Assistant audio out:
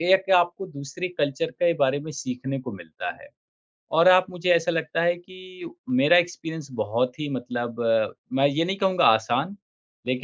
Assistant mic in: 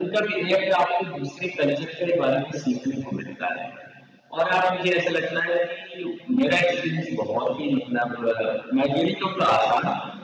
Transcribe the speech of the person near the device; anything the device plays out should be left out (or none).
none